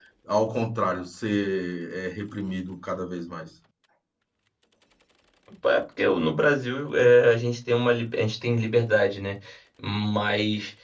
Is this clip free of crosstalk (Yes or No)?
Yes